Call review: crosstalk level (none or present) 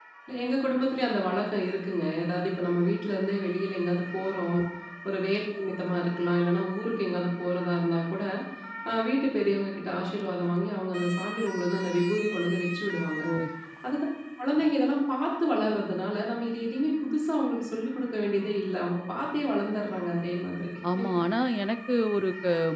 none